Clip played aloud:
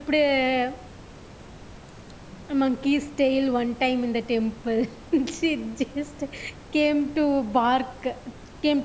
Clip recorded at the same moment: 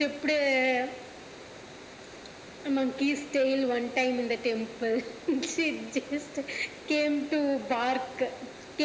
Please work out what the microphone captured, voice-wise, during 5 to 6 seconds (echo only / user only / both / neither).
echo only